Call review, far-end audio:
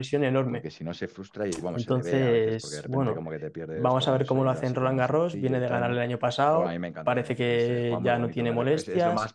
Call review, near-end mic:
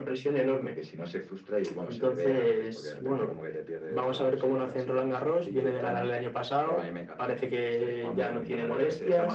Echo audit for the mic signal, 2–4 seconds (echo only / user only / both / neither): echo only